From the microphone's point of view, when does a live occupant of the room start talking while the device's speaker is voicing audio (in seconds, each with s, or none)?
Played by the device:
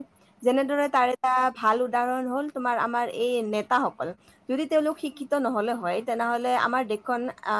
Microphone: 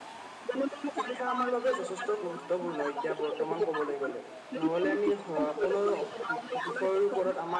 1.0 s